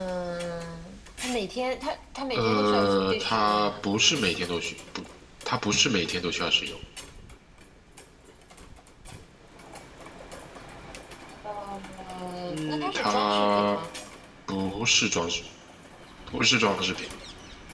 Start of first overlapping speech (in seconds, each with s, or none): 2.3 s